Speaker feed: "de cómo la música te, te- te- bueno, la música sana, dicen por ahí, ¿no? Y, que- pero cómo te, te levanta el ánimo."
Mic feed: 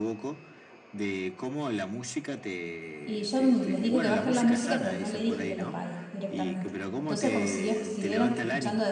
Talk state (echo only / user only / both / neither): both